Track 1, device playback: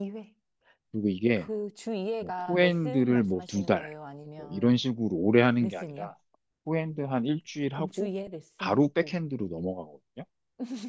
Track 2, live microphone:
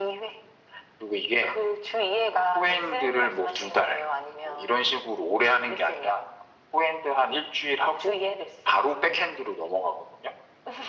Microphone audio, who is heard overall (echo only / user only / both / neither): echo only